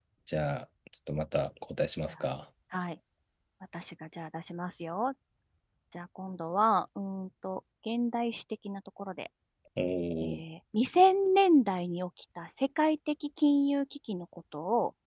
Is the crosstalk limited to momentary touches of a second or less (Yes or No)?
Yes